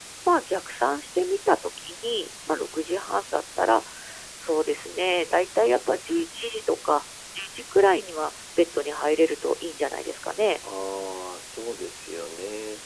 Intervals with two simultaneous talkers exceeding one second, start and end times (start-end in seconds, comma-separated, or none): none